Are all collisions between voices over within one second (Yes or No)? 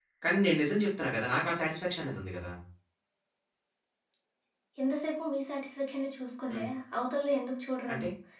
Yes